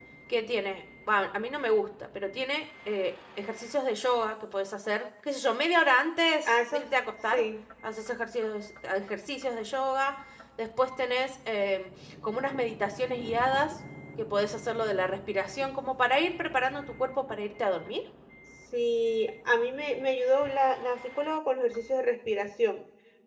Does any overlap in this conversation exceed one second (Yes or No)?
No